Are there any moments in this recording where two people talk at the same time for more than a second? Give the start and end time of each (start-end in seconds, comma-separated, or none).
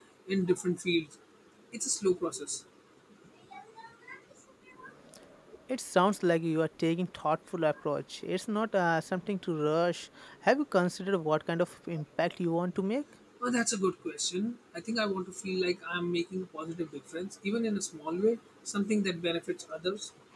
none